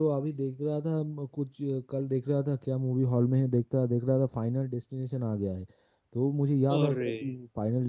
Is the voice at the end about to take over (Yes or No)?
No